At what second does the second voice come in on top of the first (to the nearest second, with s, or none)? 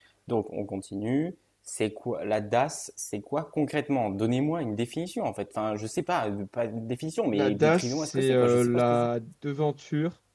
7 s